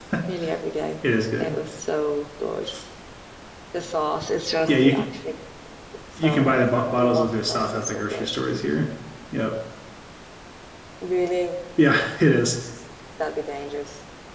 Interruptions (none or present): present